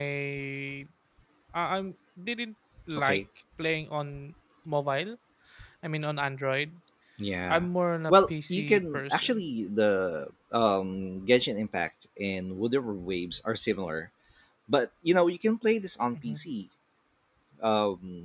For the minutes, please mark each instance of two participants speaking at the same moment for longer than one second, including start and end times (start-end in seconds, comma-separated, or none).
8.1-9.4